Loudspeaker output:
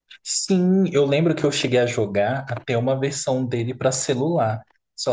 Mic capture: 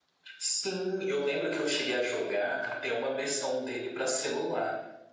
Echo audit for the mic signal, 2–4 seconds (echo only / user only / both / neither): echo only